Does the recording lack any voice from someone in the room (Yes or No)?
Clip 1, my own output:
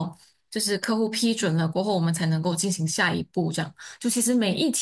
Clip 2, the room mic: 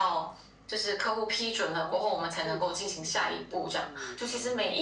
No